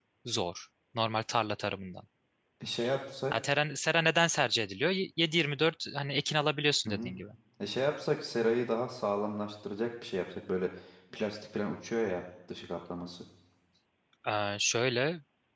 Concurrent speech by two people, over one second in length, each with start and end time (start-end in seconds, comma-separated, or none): none